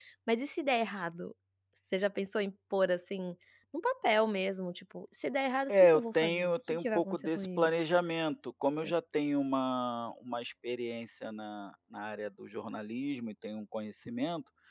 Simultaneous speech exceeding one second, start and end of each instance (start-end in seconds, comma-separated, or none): 5.7-7.7